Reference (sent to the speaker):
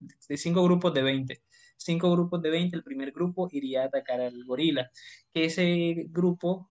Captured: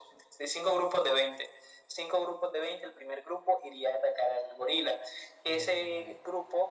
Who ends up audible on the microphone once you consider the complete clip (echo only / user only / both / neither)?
both